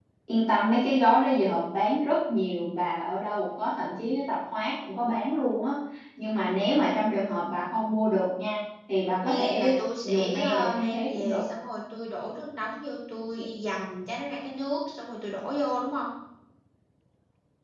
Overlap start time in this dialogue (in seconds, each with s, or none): 9.2 s